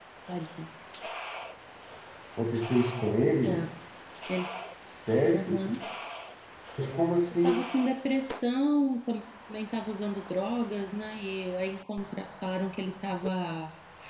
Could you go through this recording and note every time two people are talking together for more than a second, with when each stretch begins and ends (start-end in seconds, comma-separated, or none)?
none